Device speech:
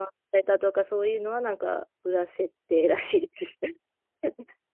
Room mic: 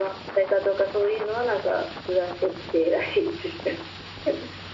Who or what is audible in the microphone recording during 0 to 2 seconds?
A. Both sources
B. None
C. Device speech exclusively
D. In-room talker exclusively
C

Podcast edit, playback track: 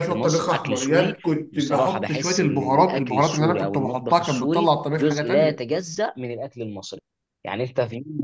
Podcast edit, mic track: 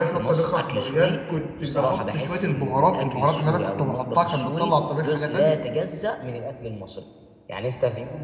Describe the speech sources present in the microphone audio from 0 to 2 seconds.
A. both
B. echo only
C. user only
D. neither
B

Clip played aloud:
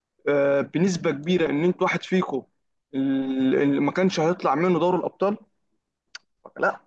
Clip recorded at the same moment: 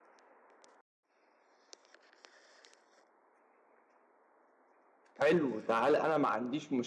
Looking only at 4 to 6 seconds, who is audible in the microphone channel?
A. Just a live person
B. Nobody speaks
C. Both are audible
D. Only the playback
A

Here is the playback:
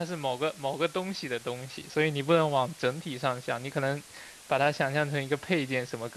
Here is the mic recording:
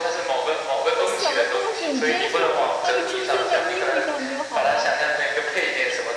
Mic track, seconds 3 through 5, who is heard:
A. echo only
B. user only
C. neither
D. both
D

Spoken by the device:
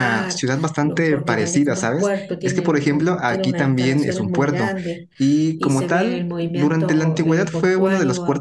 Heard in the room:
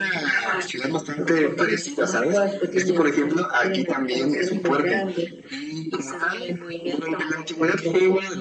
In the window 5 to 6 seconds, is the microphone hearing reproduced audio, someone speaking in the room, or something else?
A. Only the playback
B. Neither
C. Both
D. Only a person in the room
A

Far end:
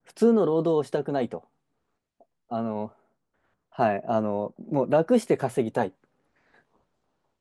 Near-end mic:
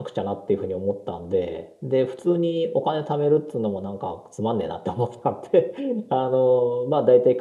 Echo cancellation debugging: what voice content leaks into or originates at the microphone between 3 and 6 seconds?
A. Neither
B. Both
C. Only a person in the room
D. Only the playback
C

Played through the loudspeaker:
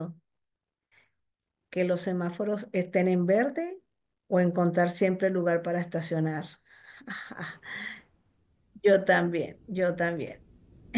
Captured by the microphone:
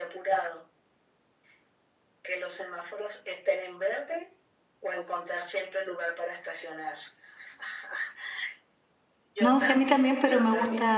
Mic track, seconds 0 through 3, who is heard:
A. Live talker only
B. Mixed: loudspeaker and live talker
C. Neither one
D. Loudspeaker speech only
D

